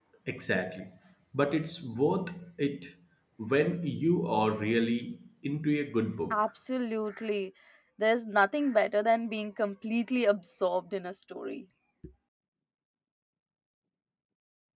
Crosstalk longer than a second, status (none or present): none